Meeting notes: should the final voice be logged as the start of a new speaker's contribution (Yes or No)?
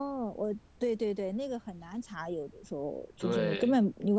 No